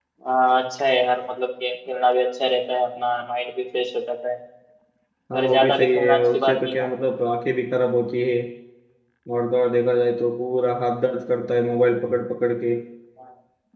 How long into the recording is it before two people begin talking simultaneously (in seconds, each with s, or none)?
5.3 s